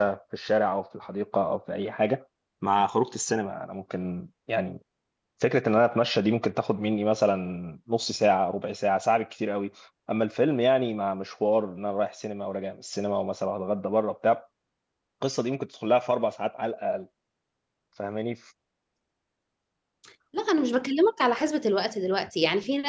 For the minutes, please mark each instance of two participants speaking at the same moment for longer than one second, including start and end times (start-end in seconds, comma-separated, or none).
none